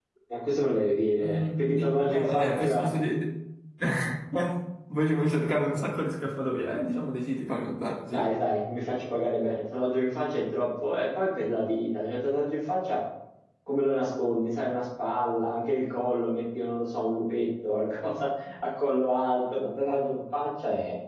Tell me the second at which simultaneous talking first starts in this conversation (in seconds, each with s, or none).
1.2 s